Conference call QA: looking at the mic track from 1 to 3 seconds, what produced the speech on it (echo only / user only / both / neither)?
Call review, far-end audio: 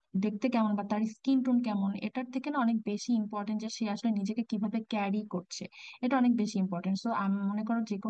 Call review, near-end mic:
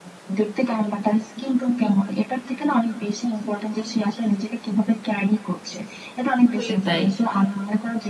echo only